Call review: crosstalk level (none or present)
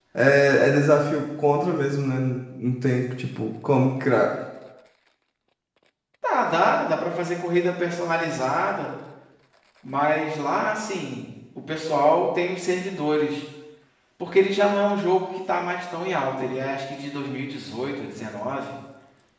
none